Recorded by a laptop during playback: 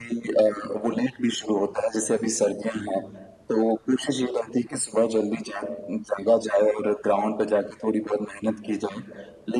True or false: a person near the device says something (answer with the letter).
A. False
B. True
A